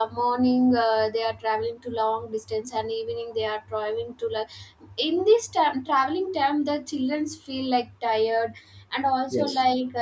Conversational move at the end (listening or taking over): listening